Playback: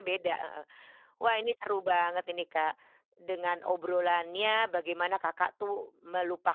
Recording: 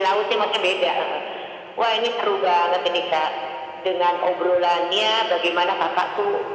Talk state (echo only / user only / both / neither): echo only